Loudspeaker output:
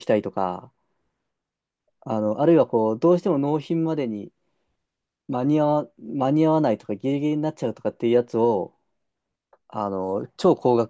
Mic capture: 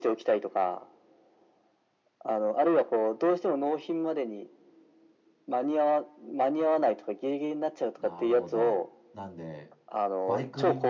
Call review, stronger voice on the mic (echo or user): echo